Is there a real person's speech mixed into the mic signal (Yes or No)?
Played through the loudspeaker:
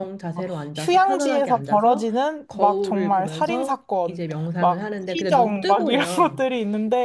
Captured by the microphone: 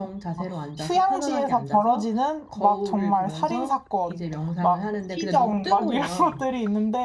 No